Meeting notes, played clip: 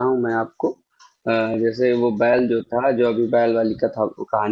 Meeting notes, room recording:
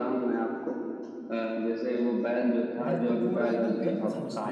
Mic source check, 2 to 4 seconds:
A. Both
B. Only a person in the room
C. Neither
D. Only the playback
A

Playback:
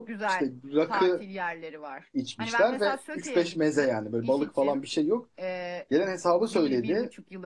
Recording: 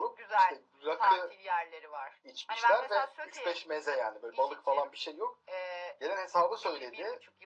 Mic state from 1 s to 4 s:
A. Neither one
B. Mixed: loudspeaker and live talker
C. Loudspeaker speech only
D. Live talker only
C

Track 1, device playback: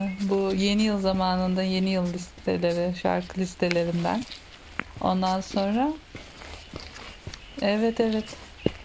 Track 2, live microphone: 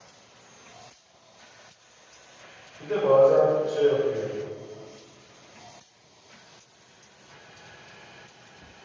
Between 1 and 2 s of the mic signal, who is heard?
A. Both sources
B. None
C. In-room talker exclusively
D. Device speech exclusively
B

